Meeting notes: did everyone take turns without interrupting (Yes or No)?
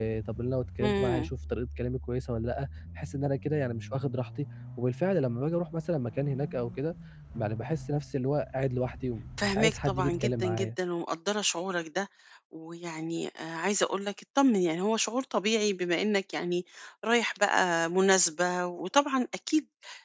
No